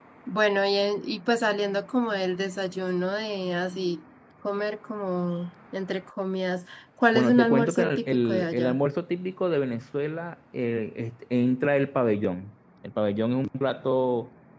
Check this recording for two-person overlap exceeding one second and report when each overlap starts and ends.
7.1-8.8

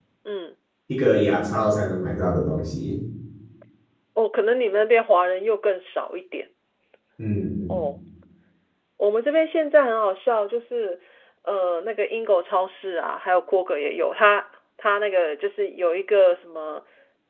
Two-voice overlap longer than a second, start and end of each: none

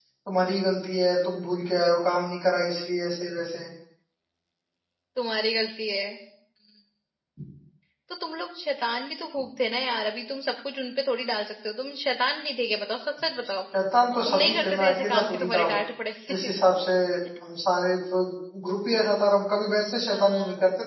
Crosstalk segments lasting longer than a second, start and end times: 14.2-15.8

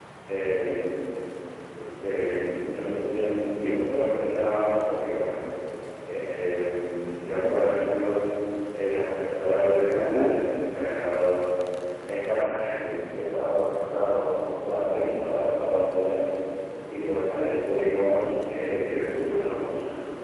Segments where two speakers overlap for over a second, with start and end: none

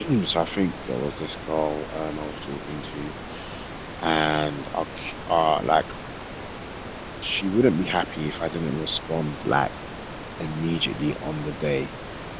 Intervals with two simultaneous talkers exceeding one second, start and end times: none

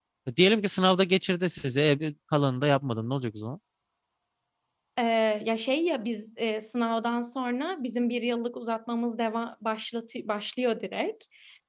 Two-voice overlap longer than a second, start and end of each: none

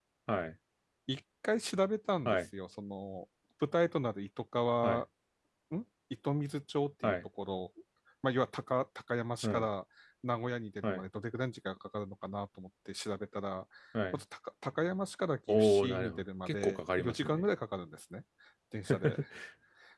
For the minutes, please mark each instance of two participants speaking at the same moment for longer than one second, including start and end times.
15.5-17.4

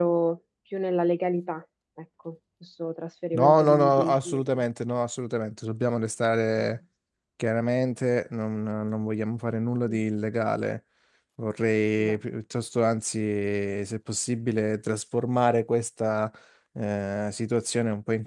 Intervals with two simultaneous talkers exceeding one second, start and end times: 3.3-4.6

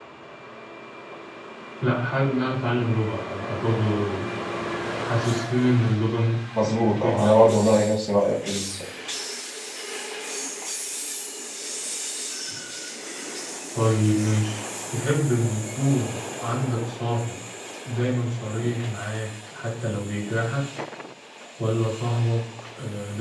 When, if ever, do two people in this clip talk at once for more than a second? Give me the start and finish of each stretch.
6.6-7.8

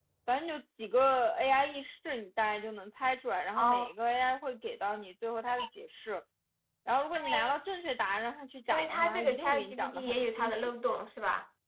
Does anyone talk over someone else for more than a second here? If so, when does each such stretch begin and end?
8.7-10.7

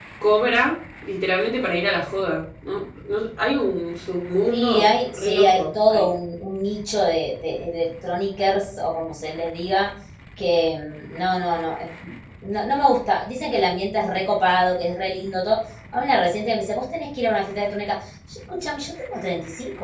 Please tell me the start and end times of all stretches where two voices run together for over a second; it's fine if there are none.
4.5-6.1

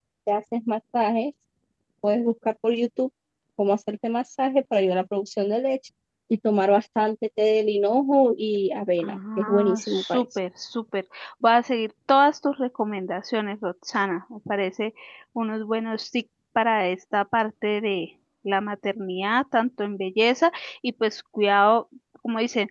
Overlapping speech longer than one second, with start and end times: 9.0-10.2

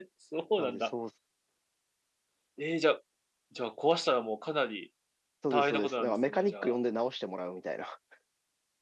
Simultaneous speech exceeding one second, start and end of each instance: 5.5-6.8

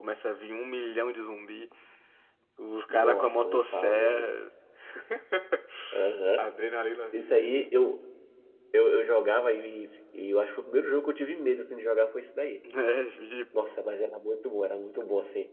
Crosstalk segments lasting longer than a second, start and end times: 2.9-4.3

